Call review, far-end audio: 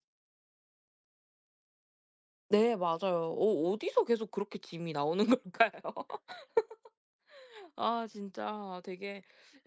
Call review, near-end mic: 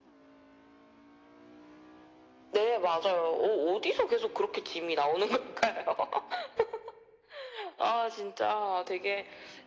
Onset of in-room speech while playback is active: none

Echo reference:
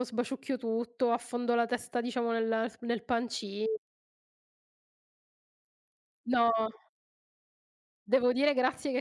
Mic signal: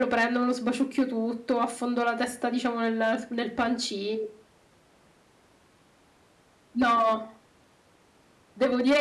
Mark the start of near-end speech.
none

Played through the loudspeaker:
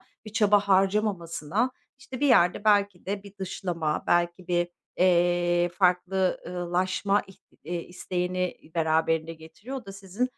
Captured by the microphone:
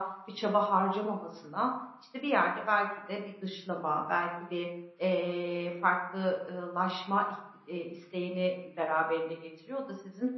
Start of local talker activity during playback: none

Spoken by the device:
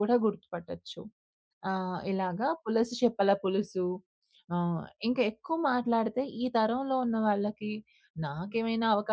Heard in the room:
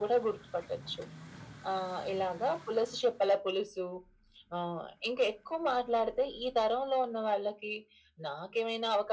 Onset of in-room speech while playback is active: none

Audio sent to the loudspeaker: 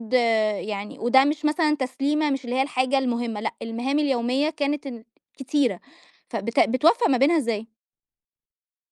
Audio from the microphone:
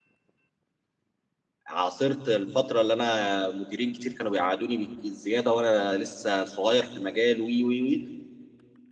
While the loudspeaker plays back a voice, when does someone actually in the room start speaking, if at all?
2 s

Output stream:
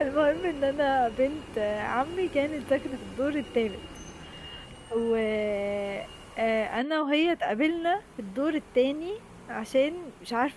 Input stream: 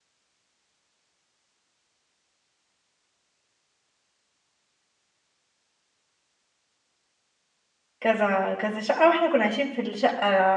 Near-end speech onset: 8 s

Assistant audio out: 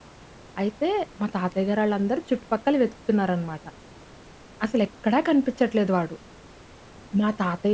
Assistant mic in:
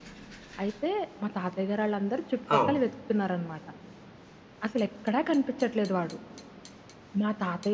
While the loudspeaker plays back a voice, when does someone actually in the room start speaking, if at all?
3 s

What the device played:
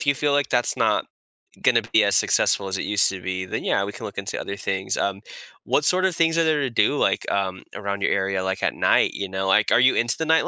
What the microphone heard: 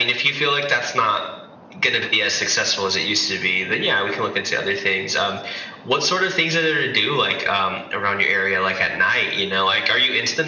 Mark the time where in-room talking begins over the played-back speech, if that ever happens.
none

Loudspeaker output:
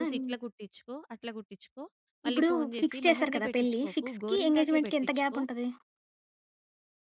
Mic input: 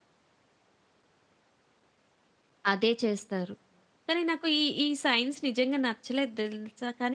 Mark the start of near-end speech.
3 s

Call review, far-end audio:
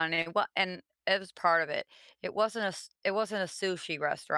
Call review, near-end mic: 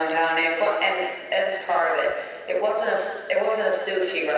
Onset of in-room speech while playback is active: none

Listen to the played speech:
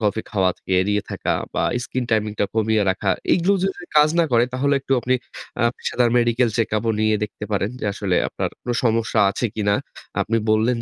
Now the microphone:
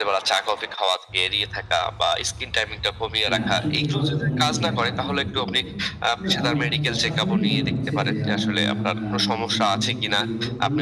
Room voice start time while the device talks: 3 s

